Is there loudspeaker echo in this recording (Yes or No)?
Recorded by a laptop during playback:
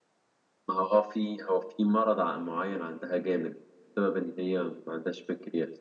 No